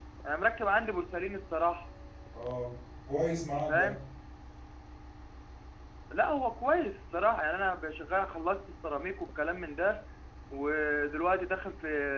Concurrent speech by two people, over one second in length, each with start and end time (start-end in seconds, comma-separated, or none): none